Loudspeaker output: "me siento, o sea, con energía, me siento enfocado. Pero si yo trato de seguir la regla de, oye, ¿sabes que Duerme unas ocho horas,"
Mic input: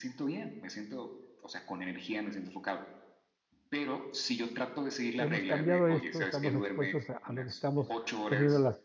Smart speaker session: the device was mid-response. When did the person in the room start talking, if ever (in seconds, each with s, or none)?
5.2 s